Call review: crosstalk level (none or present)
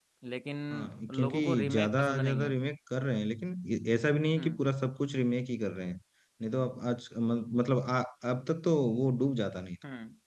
present